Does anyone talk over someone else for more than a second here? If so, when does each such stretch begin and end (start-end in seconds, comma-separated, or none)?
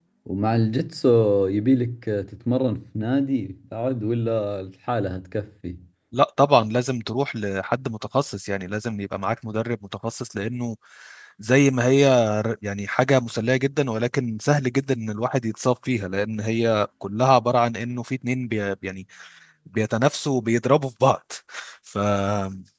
none